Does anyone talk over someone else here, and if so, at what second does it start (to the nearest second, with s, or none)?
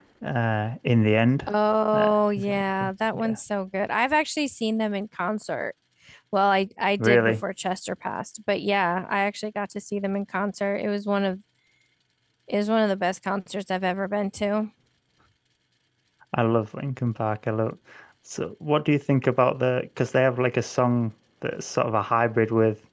2 s